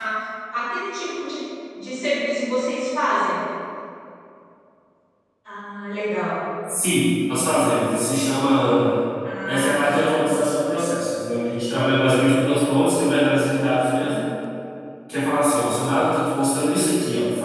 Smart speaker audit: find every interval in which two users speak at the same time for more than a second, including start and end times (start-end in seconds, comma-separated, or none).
none